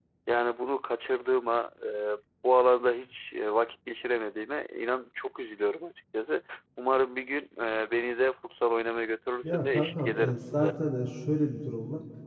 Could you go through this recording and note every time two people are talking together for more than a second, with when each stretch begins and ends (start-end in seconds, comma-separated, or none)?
9.4-10.7